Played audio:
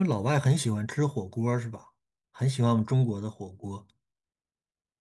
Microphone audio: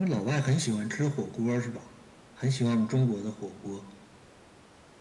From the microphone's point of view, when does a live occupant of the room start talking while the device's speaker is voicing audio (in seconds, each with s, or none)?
none